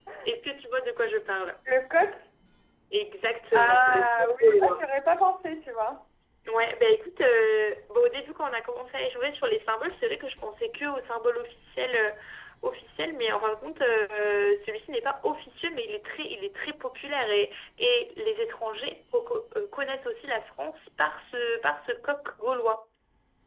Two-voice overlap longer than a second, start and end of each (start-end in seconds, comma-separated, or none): 3.5-4.8